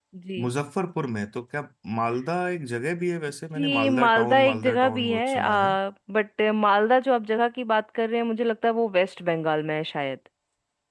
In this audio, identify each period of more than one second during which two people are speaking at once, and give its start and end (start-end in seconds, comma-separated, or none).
3.5-5.6